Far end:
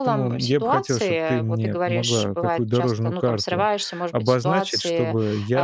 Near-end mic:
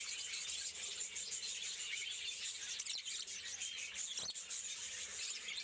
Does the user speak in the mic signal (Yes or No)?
No